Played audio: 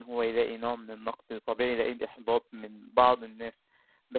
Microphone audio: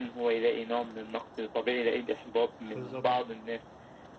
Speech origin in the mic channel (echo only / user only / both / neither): both